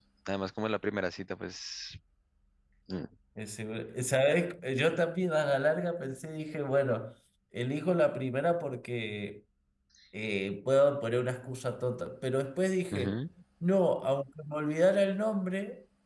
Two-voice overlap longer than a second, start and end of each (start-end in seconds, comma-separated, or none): none